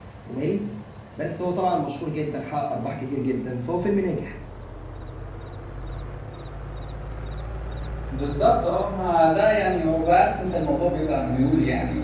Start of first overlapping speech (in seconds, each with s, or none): none